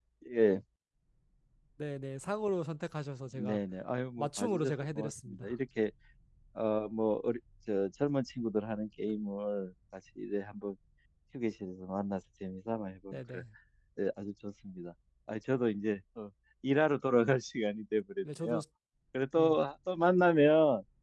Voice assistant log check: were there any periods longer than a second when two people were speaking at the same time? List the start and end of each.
4.2-5.5

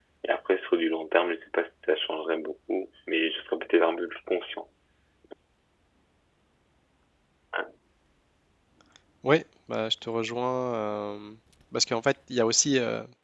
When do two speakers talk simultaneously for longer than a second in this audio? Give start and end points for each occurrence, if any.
none

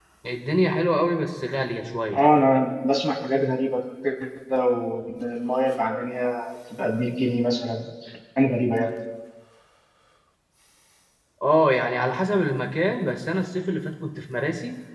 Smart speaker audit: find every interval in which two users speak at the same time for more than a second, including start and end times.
none

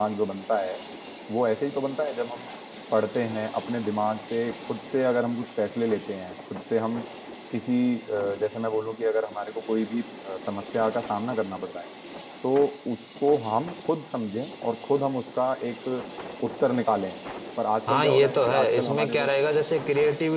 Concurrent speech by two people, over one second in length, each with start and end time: 17.9-19.3

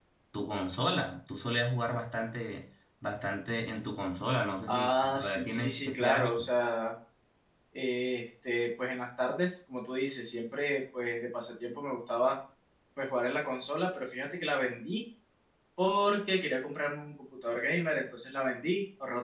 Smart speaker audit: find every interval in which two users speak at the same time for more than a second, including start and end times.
4.7-6.4

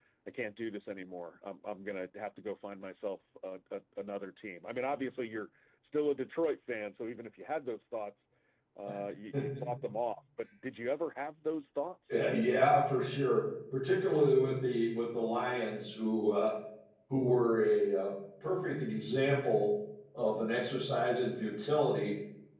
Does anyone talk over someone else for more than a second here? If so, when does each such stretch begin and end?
none

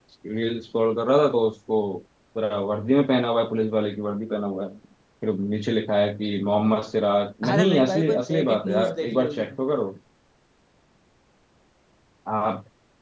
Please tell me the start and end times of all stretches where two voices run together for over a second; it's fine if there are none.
7.5-9.6

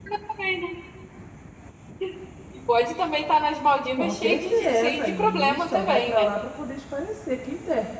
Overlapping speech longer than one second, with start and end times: 4.0-6.3

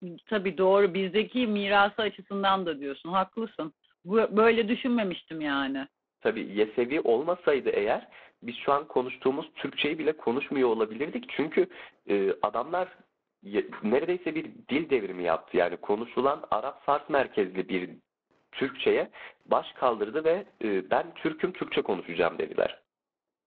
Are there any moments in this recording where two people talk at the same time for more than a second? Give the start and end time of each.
none

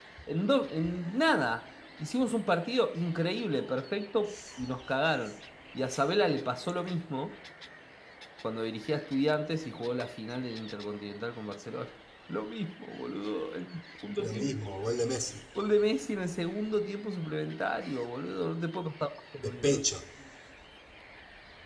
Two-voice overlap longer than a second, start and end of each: none

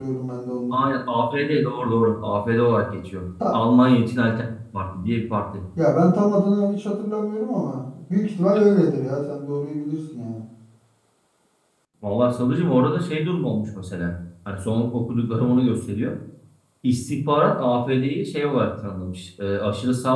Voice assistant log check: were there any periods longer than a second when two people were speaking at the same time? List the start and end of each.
none

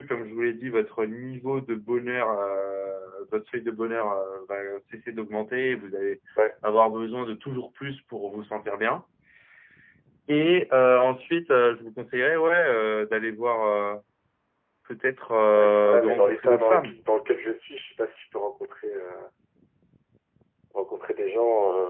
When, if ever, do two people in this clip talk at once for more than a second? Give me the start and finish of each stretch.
15.6-17.0

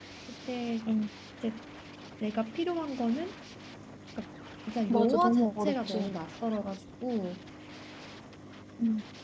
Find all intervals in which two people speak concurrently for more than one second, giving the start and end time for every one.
4.9-6.1

